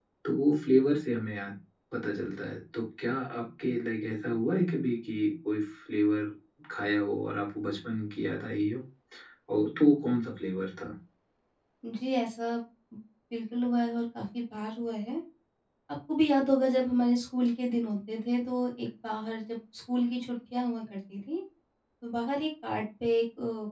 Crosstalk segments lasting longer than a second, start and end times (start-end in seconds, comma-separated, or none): none